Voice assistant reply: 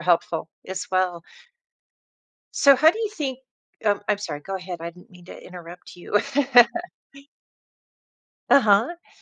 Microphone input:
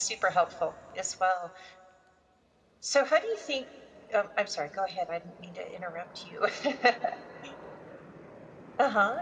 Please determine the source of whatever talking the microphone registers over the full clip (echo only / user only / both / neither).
echo only